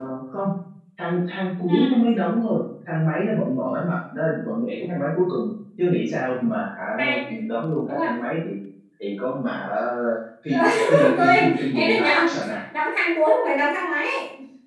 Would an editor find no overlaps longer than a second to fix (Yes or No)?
No